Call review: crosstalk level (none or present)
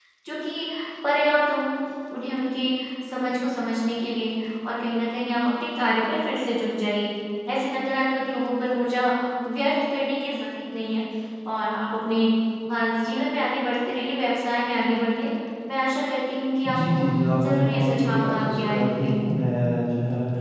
present